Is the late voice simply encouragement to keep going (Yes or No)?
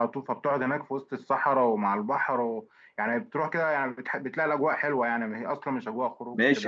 No